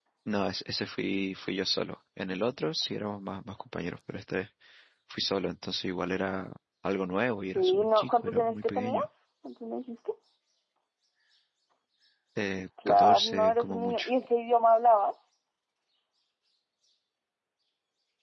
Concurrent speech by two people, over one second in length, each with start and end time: 7.4-9.1, 12.9-14.1

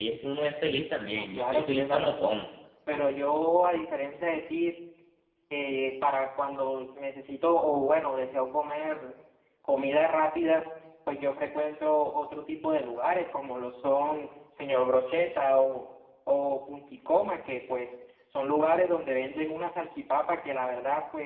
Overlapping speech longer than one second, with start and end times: 1.1-2.4

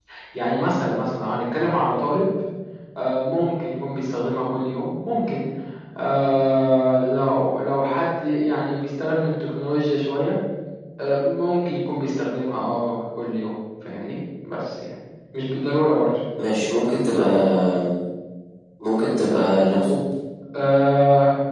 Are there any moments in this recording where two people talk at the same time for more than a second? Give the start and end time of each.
none

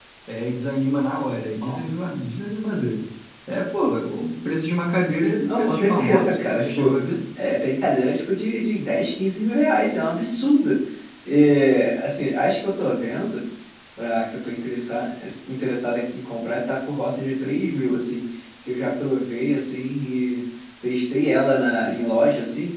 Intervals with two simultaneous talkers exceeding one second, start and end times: 5.5-7.0

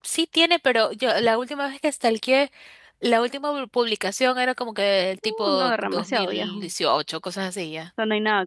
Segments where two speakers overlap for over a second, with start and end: 5.2-6.7

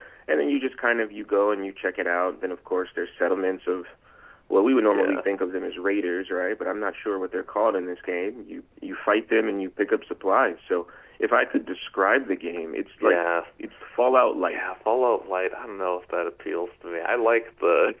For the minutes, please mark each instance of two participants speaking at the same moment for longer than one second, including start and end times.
none

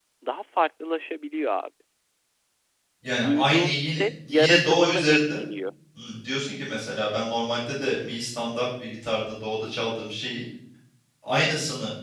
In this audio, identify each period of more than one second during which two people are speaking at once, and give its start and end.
3.2-5.4

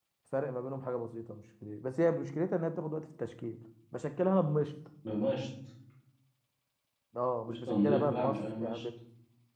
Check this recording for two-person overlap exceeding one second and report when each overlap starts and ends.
7.5-8.8

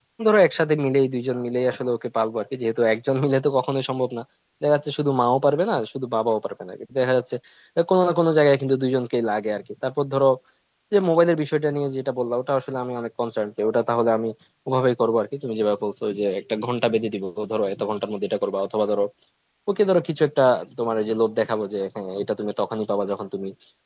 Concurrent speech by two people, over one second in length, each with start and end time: none

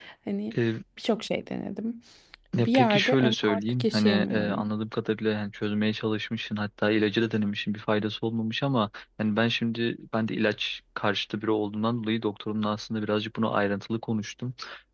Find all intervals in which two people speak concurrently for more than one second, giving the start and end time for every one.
2.6-4.7

